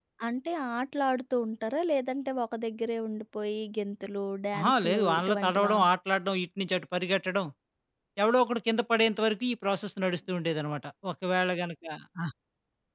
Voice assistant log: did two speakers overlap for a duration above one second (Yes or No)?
Yes